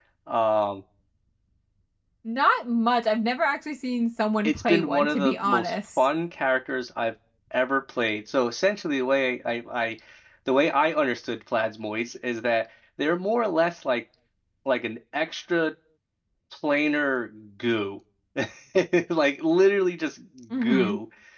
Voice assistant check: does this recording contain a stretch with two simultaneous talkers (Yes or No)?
Yes